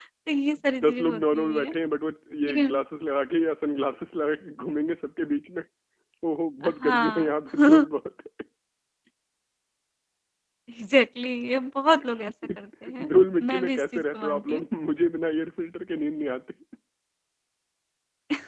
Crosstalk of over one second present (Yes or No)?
Yes